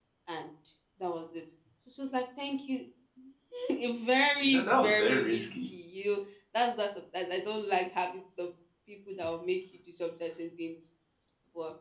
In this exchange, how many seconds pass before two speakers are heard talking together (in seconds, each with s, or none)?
4.4 s